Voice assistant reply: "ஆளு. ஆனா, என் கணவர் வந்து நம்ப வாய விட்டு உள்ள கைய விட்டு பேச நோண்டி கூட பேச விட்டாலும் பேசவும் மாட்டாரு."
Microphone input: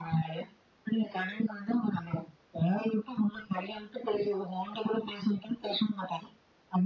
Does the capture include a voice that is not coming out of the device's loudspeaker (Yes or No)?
No